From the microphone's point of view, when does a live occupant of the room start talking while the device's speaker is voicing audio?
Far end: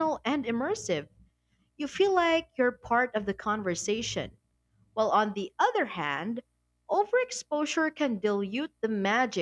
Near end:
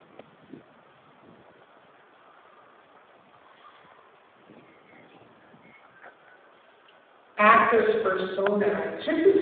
7 s

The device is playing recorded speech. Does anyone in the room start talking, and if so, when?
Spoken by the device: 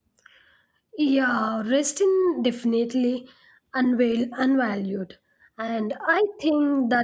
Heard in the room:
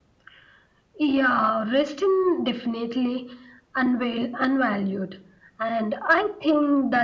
none

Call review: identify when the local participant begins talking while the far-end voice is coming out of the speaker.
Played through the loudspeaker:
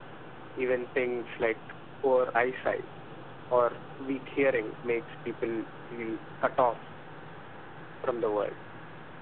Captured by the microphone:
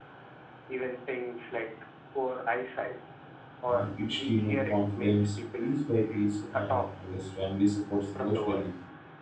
4 s

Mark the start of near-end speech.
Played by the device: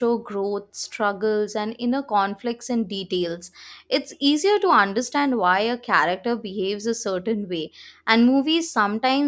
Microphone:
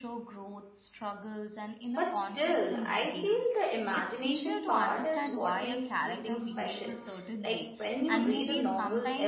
2 s

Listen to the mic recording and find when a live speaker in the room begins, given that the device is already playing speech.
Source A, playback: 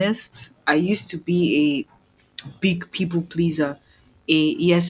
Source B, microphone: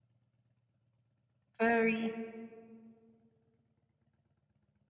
2 s

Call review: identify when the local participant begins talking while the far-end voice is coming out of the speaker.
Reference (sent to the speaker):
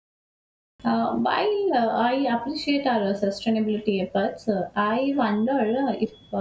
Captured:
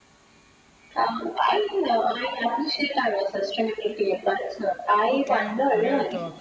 5 s

